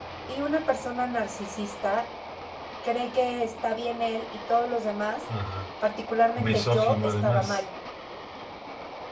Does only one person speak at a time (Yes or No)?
No